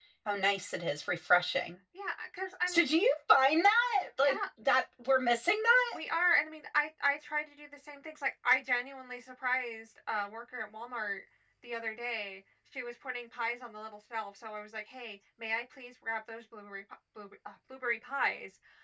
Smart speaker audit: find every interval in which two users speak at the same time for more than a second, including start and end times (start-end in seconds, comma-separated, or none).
none